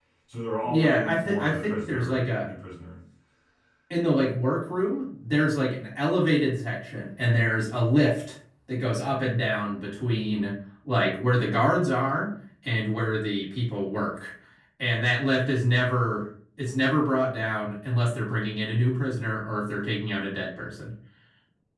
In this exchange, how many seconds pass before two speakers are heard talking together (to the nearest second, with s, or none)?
1 s